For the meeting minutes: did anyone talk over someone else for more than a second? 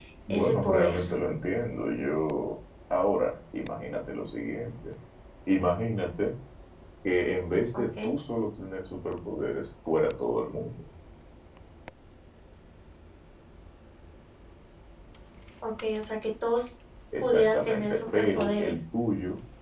Yes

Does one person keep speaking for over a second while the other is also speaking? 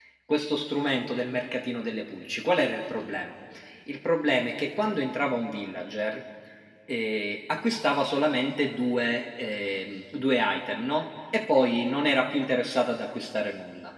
No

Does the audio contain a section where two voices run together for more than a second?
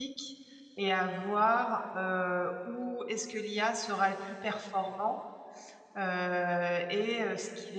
No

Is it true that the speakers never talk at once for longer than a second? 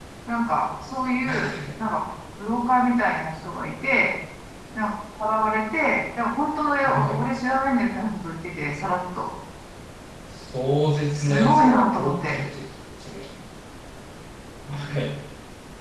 No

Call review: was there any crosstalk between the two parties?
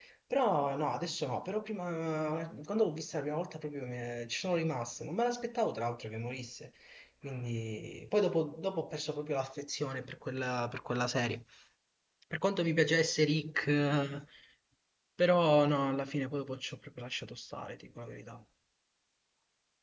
No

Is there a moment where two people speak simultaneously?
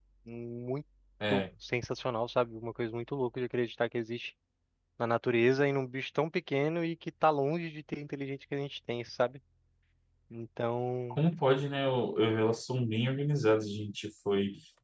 No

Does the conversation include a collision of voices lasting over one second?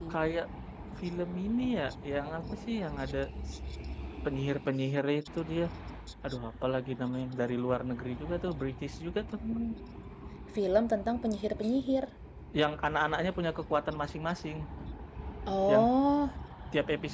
No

